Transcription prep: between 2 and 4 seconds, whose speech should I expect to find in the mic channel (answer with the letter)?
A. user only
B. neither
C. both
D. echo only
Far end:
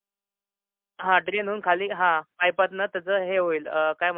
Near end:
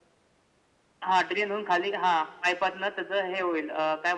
D